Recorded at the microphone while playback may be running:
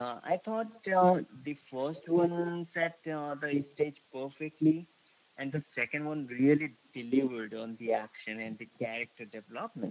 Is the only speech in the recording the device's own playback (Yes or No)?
Yes